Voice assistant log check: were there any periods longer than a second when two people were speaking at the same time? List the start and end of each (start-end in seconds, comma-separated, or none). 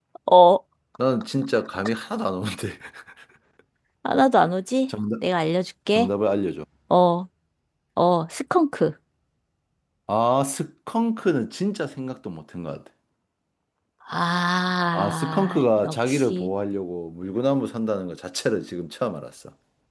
14.9-16.5